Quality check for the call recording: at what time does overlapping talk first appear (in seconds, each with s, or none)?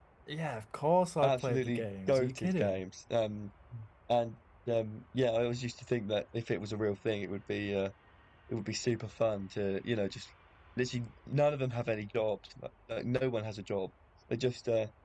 1.2 s